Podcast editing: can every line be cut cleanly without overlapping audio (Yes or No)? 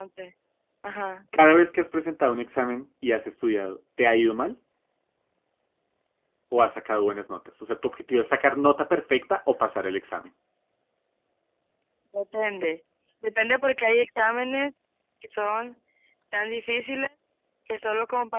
Yes